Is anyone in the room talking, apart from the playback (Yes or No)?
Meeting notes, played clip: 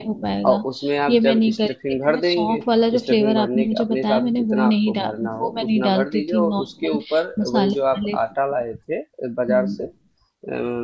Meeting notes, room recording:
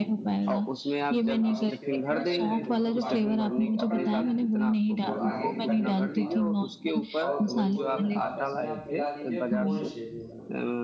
Yes